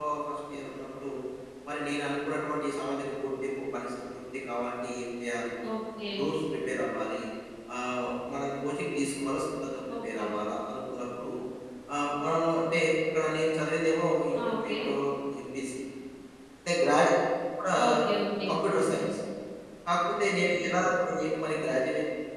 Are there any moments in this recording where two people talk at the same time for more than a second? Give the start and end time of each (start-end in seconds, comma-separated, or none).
none